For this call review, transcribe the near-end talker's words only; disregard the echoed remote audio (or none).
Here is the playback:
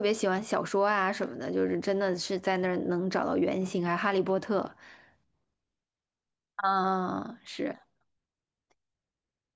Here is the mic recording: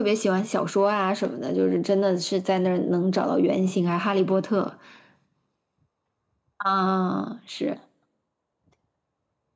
none